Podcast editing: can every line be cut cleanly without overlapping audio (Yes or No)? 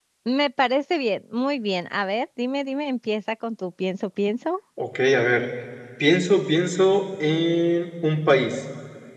Yes